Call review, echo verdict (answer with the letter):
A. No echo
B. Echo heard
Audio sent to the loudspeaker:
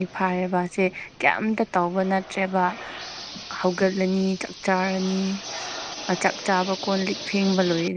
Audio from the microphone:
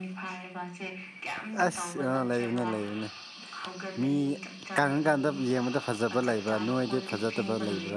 B